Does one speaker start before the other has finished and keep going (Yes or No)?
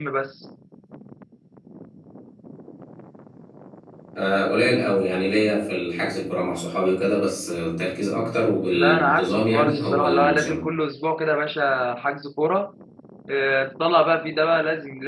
Yes